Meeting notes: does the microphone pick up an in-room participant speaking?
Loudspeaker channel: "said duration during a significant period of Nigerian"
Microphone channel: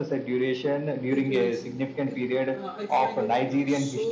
Yes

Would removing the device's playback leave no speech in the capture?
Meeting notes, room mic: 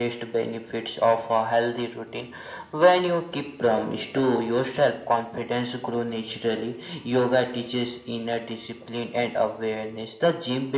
Yes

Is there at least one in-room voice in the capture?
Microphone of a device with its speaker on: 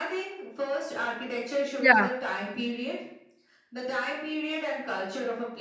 Yes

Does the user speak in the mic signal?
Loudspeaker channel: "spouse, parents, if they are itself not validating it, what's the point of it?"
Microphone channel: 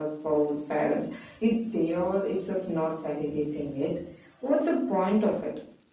No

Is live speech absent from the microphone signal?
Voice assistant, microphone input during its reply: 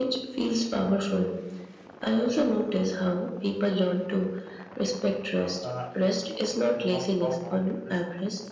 No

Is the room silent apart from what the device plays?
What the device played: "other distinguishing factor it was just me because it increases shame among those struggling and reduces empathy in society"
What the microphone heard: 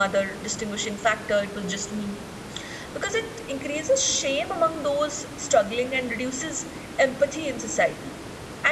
Yes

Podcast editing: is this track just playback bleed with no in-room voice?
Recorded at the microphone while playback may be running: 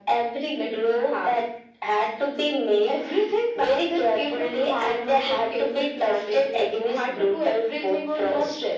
Yes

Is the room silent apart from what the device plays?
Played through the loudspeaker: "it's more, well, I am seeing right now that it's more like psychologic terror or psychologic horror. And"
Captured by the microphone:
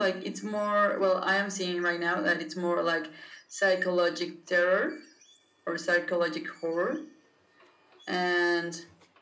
Yes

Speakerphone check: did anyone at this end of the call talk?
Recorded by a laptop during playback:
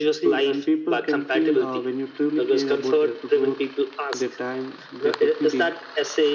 No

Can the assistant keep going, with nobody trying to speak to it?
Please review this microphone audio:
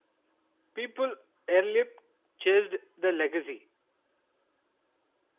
No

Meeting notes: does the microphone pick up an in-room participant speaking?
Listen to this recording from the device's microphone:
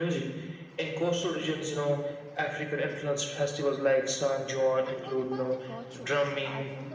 Yes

